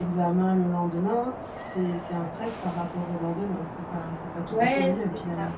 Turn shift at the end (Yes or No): Yes